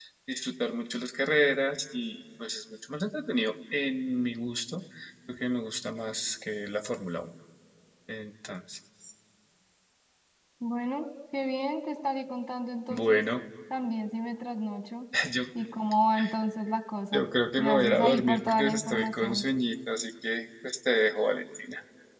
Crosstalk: present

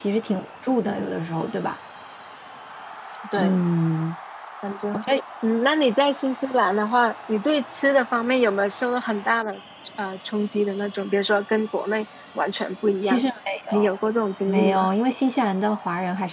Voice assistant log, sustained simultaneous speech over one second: none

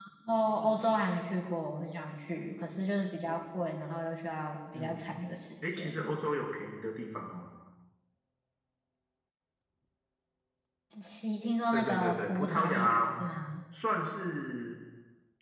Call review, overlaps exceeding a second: present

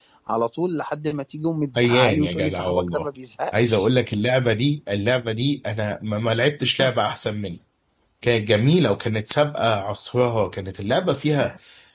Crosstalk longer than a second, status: present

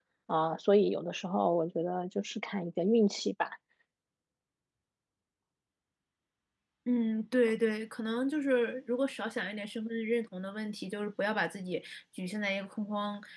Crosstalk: none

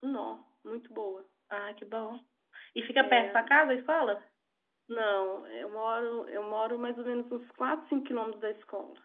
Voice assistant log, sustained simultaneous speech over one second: none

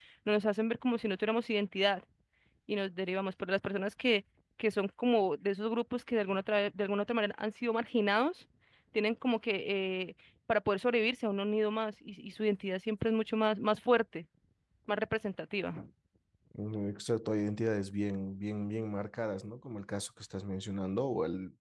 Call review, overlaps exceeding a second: none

